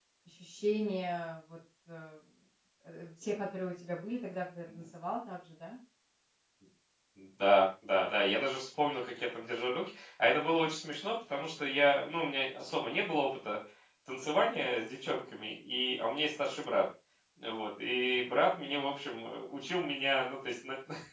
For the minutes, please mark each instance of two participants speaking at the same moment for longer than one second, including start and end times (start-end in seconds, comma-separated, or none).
none